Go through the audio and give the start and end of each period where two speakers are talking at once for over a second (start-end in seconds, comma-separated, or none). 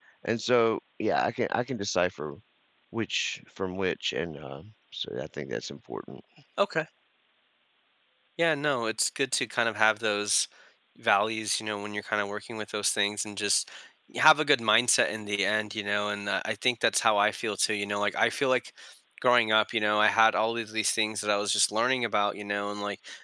none